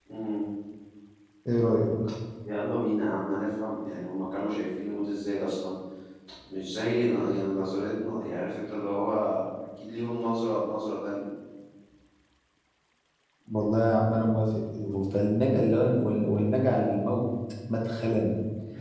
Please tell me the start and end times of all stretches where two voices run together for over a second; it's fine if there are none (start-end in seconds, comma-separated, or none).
none